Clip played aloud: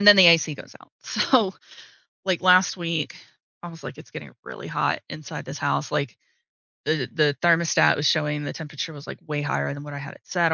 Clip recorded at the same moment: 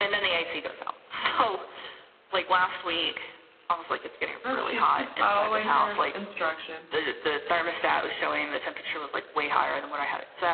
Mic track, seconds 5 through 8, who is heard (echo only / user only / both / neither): both